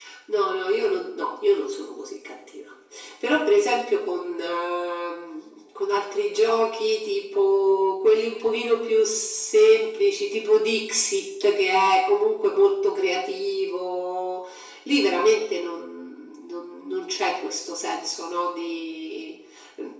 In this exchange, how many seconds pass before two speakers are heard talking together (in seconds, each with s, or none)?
none